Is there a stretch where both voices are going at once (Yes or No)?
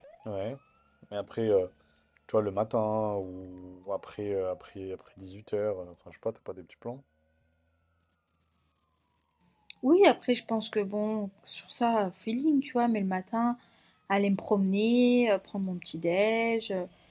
No